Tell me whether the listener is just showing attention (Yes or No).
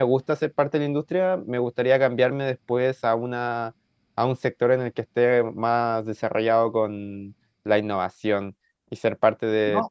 Yes